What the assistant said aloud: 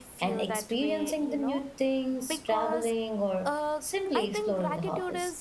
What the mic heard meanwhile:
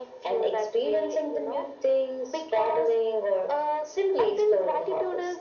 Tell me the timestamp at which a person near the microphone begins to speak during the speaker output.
none

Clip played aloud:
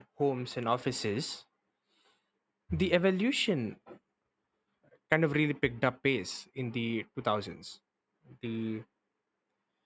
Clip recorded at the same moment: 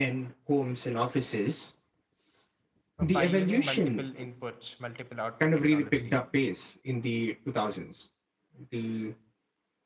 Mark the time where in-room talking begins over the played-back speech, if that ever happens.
3.0 s

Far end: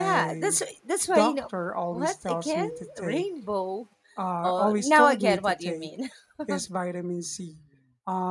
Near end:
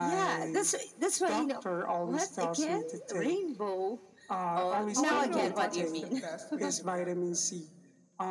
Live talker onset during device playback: 4.9 s

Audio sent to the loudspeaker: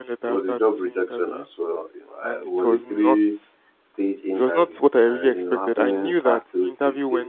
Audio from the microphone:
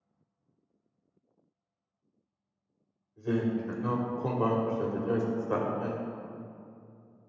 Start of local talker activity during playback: 3.1 s

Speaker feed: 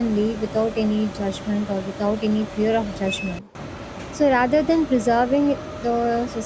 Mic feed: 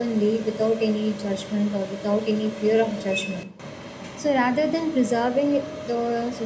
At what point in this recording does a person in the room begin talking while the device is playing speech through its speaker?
none

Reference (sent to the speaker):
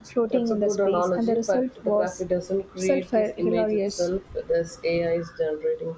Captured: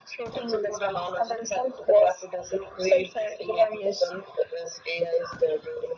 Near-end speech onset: none

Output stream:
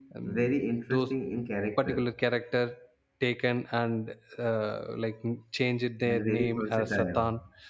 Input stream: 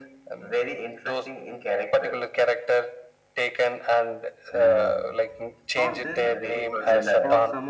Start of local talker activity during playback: 4.5 s

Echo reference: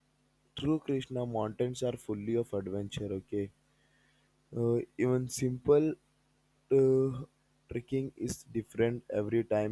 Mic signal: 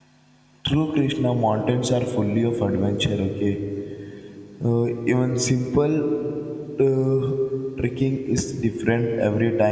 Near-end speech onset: none

